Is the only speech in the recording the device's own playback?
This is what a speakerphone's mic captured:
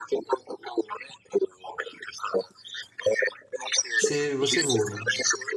No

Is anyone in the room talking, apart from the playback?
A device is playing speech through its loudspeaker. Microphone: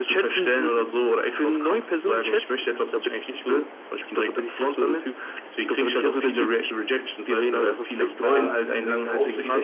Yes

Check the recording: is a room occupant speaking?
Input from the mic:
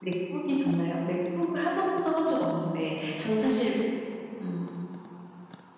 Yes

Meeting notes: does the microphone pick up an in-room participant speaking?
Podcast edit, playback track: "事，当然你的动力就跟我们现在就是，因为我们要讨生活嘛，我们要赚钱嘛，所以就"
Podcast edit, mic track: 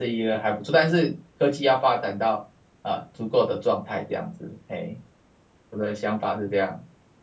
Yes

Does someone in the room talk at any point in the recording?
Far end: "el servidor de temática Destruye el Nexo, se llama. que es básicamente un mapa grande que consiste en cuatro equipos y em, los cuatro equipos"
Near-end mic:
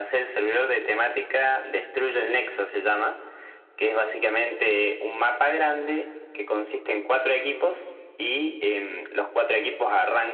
No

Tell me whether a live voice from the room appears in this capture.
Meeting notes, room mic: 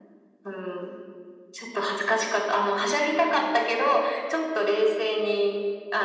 No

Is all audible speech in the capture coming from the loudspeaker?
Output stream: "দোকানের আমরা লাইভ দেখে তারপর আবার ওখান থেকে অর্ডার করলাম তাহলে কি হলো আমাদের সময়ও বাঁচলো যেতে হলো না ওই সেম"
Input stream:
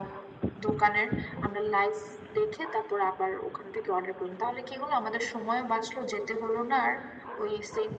Yes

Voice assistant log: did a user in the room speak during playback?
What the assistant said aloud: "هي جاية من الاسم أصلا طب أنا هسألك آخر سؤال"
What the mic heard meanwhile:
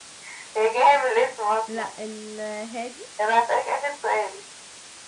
Yes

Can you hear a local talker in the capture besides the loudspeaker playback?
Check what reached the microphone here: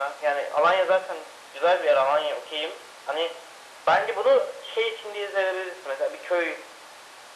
No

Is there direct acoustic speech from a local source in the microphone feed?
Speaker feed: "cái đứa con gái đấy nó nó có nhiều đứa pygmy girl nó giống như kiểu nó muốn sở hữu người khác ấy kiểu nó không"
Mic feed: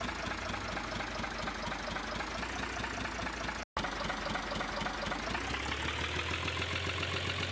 No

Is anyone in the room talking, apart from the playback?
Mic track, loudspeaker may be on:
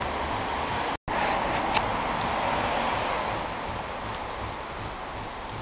No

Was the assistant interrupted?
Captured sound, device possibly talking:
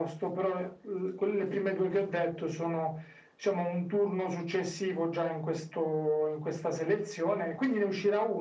No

